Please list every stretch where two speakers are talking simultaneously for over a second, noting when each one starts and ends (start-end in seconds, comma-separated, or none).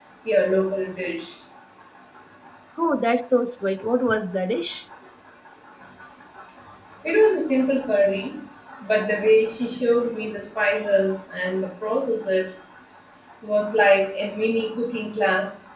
none